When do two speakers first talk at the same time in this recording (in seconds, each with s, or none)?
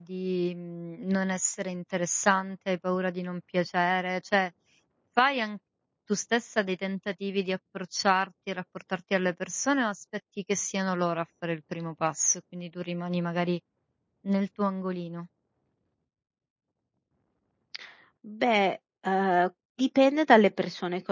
none